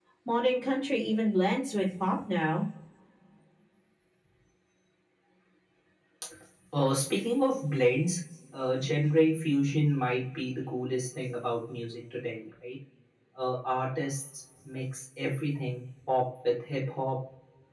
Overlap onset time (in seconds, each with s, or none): none